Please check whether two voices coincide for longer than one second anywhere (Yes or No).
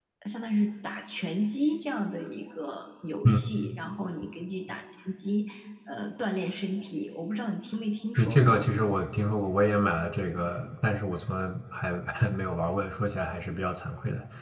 No